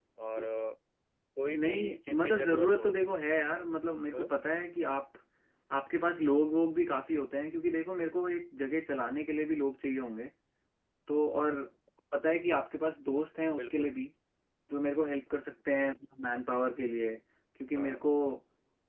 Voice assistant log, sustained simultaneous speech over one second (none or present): present